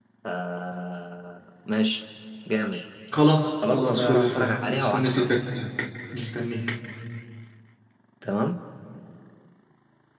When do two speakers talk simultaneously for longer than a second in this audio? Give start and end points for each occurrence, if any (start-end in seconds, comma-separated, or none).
3.7-5.3